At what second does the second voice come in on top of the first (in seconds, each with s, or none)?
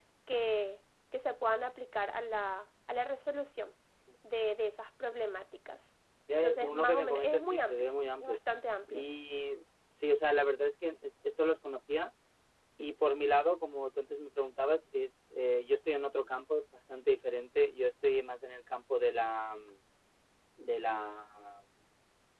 6.3 s